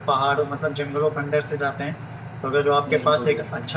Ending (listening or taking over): listening